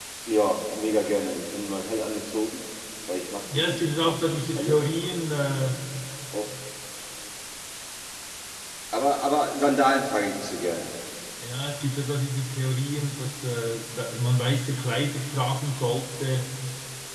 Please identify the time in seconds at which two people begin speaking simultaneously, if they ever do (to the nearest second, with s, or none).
4 s